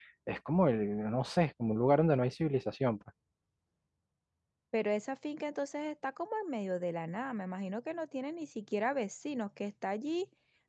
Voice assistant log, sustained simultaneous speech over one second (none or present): none